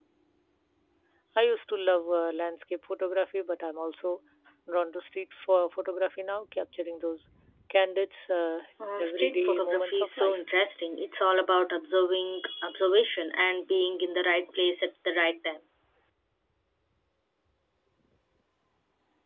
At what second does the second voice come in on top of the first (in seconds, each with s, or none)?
8.8 s